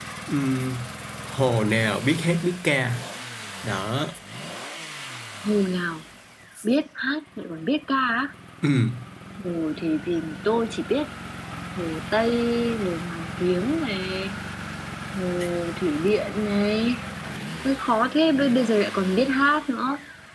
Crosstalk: none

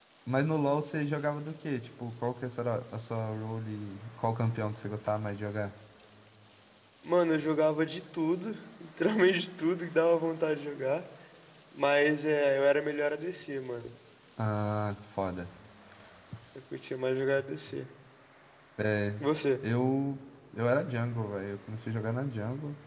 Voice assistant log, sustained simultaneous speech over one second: none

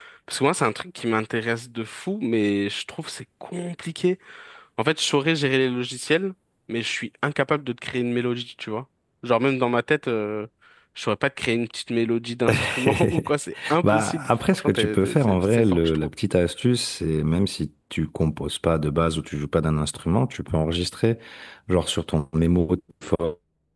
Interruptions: present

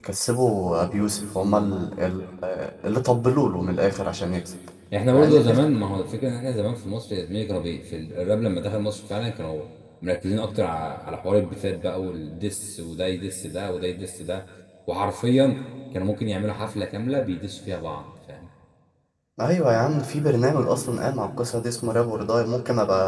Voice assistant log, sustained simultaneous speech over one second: none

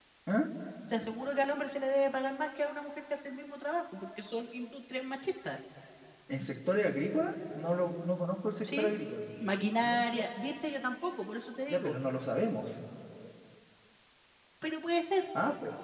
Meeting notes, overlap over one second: none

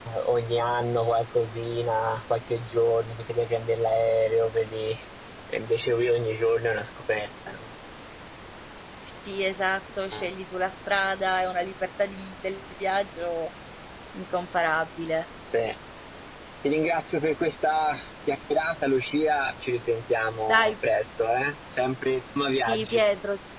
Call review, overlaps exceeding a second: none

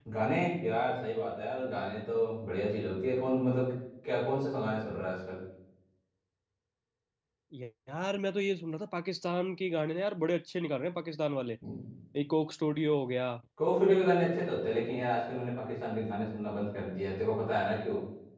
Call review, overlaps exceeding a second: none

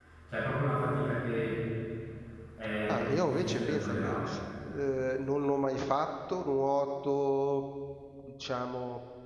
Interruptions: present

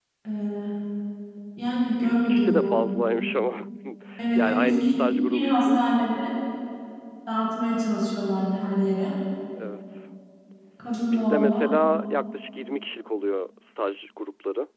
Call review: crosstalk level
present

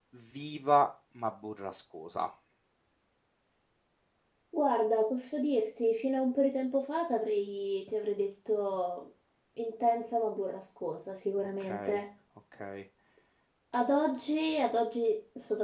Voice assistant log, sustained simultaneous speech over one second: none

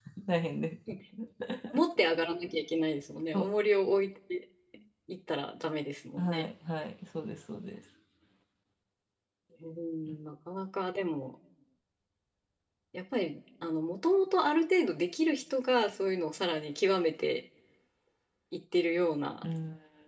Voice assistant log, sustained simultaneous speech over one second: none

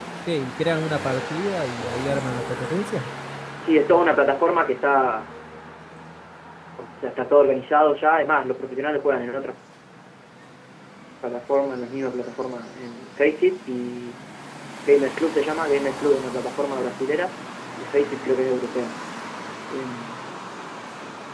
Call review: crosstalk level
none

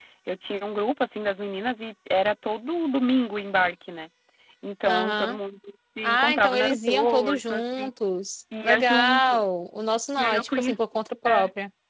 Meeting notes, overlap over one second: present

